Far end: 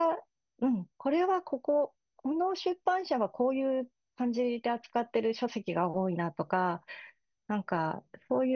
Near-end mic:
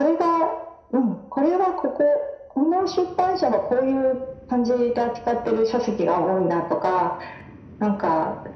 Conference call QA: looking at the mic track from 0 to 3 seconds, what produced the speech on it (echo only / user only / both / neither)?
echo only